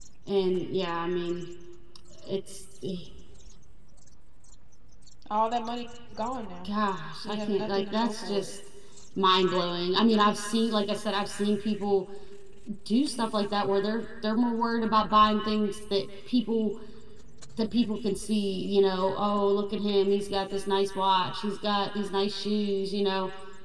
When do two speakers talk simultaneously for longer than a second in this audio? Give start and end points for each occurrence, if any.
7.2-8.5

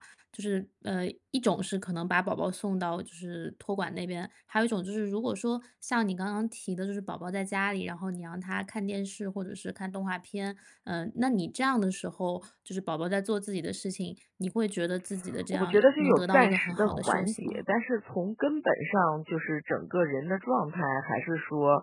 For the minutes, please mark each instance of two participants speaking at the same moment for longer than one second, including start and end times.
15.5-17.6

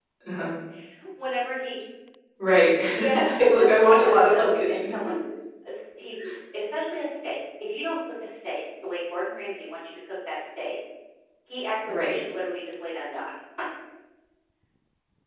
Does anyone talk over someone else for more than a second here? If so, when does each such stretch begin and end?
2.9-4.9

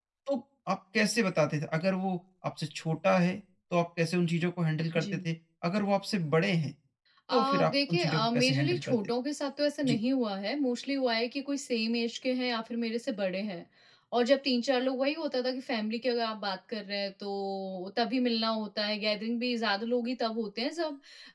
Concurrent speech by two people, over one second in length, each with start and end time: 7.3-9.0

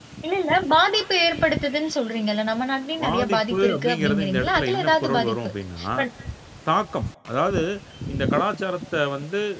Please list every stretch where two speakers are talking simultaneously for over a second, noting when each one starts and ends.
3.0-5.5

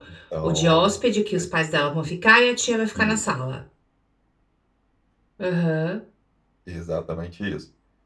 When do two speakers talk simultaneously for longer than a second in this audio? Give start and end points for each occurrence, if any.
none

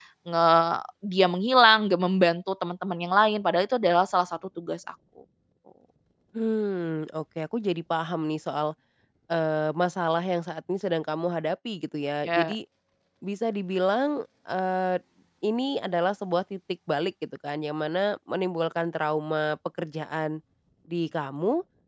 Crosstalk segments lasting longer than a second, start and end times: none

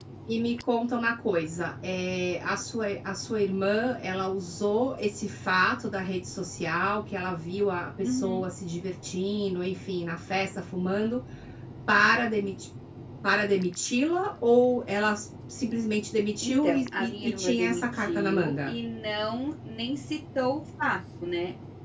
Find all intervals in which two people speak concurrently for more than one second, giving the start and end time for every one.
16.4-18.7

